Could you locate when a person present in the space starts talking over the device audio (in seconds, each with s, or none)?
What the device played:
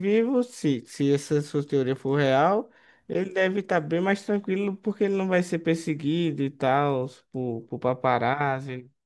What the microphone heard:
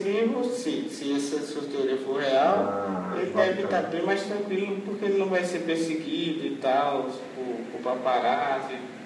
2.4 s